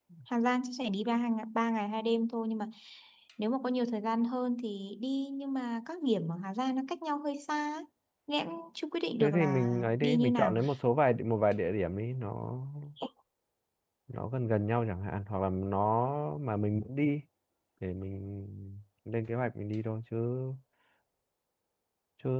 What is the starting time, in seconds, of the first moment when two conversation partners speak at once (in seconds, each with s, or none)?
9.2 s